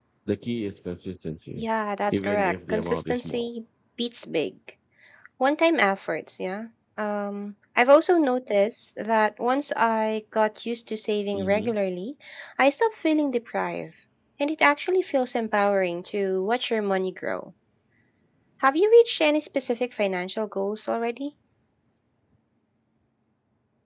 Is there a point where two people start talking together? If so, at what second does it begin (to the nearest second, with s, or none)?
2 s